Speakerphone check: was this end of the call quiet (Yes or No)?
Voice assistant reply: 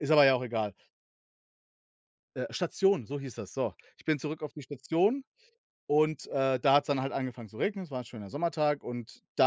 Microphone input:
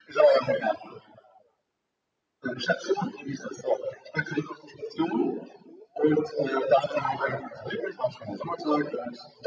Yes